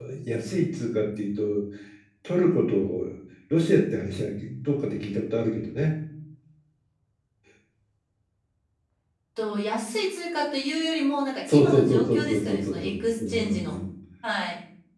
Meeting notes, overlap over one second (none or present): present